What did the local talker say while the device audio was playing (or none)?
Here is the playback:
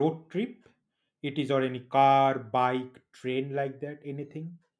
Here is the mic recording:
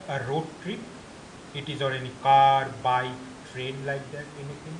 none